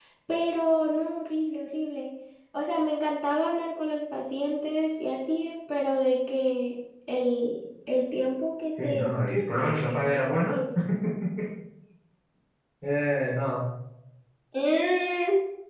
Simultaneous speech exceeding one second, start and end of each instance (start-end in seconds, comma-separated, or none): 8.7-10.6